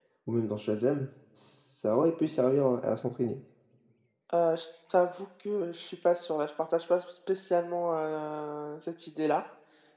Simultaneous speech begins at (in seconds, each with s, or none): none